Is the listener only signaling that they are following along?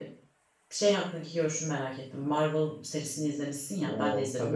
Yes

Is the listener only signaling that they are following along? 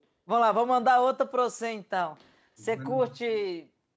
Yes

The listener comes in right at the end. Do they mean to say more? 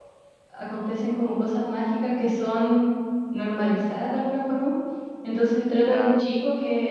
No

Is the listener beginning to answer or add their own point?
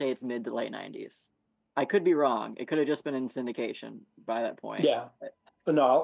Yes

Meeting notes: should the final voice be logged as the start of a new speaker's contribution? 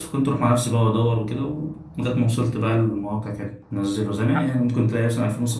No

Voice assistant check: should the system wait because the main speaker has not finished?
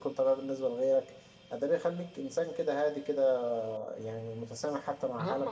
No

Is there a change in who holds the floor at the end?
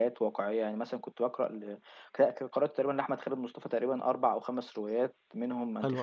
No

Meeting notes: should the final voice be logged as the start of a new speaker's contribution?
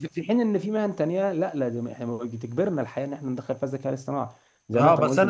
Yes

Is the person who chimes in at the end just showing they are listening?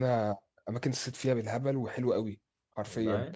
Yes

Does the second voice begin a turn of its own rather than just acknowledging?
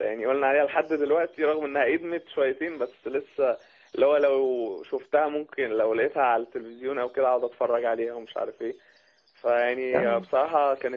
No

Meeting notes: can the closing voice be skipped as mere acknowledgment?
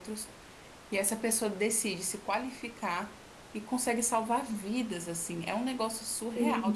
Yes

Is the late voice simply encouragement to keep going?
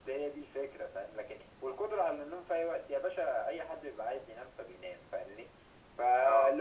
Yes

